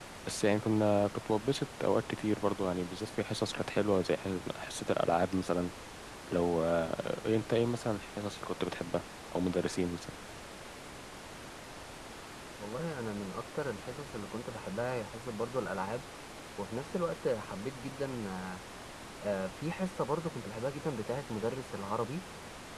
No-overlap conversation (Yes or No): Yes